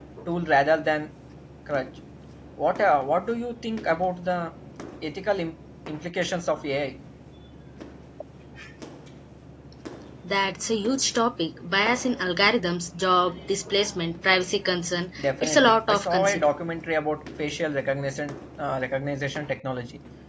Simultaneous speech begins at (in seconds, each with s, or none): 15.2 s